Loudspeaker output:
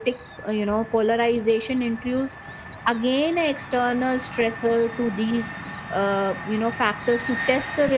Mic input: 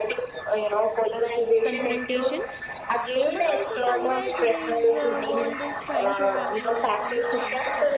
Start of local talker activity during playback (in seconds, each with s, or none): 1.6 s